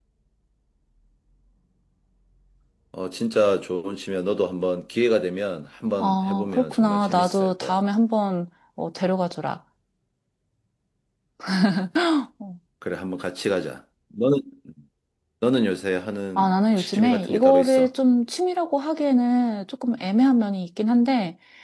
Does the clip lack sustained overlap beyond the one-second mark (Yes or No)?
No